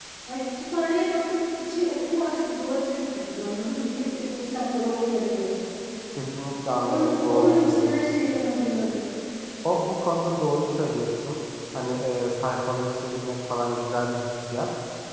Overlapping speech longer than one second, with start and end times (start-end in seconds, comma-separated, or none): 6.8-8.2